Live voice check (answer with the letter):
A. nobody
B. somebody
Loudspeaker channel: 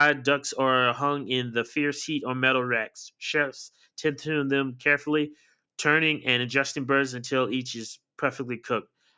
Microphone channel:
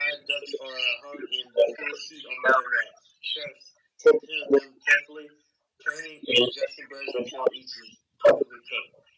A